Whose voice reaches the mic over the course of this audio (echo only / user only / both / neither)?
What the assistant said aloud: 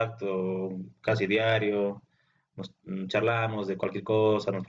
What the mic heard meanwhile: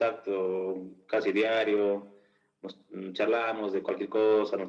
echo only